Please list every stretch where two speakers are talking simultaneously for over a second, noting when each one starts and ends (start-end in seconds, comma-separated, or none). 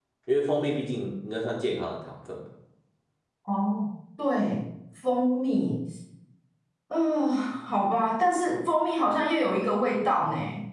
none